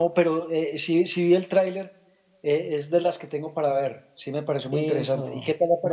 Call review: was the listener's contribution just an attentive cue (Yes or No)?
No